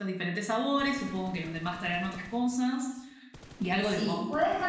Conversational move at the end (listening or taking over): taking over